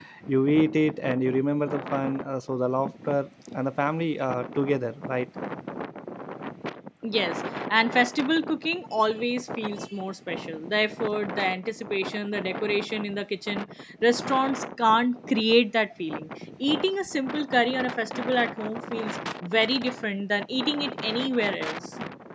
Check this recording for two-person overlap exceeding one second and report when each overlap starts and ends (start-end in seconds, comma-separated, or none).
none